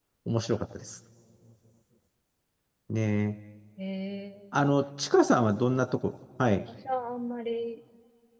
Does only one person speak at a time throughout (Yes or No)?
Yes